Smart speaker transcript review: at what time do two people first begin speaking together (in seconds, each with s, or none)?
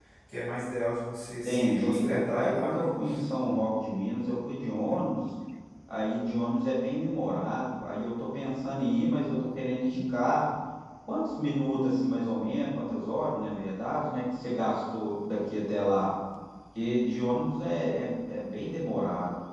1.4 s